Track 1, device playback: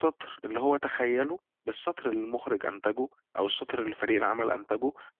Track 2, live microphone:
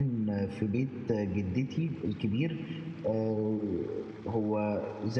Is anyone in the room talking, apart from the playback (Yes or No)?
Yes